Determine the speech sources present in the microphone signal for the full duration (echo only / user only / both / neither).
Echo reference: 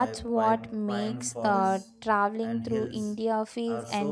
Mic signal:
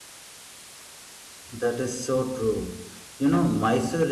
user only